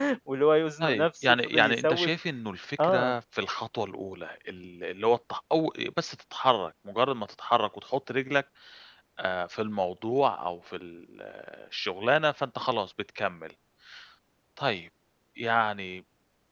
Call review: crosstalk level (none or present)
present